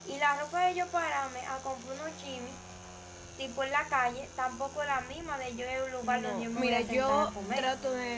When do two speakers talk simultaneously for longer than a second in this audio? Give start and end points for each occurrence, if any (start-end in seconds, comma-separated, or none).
6.0-7.7